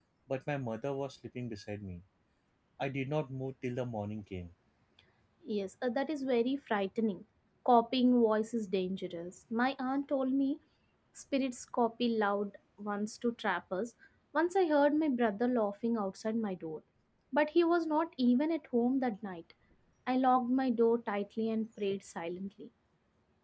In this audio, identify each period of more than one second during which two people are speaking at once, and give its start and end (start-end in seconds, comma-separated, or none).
none